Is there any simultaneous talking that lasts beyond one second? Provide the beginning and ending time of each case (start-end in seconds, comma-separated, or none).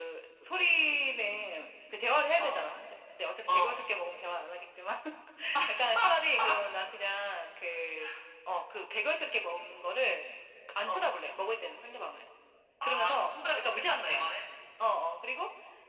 12.8-14.3